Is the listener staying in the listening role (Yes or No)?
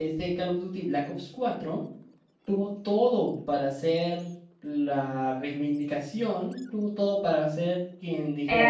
No